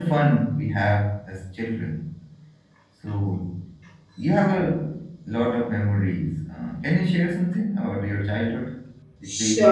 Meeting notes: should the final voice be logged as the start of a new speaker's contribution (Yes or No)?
Yes